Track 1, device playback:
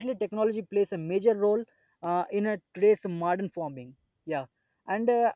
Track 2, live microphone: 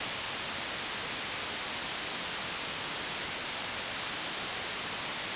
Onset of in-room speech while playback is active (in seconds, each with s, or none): none